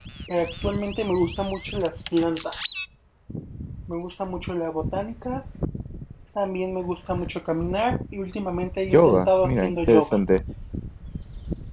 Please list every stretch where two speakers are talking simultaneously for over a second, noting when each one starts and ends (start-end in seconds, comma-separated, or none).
8.9-10.2